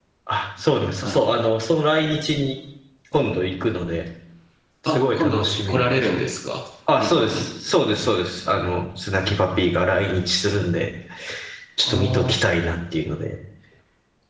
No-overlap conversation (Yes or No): No